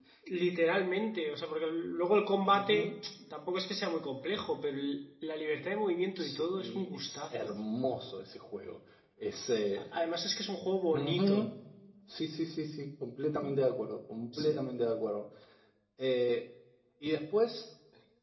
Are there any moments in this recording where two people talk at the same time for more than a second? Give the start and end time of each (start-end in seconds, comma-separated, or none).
6.2-7.5